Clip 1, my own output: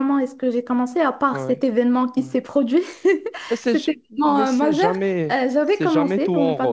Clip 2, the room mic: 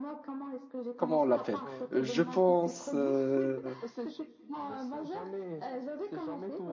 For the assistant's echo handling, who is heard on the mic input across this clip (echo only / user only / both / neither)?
both